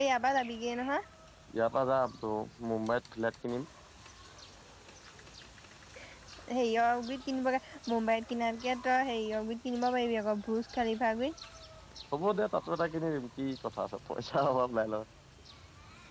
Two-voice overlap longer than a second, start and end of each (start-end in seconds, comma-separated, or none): none